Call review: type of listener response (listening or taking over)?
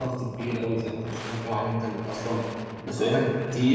listening